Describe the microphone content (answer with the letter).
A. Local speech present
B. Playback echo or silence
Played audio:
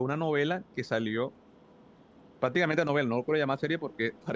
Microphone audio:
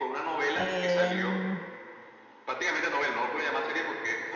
A